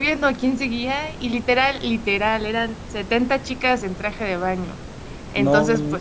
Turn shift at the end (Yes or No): No